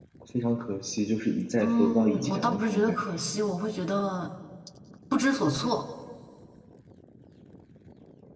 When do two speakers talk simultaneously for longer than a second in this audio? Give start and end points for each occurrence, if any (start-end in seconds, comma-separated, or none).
1.6-3.3